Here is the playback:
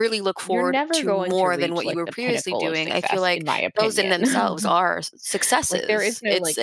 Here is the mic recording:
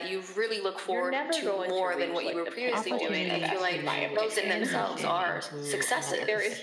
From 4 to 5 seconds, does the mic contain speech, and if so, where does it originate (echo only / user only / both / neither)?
both